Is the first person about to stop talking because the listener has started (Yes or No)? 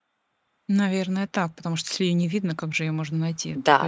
Yes